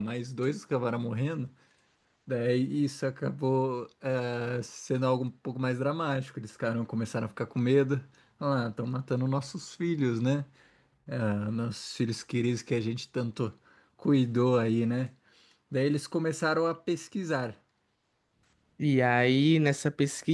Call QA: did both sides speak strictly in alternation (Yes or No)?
Yes